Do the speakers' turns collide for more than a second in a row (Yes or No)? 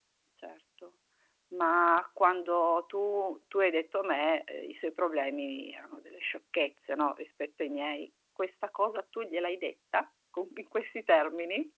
No